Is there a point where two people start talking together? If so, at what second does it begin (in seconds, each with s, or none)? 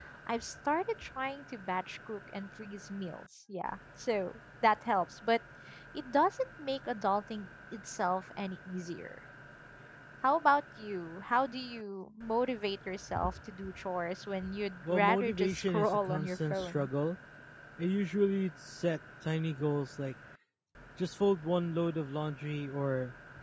14.8 s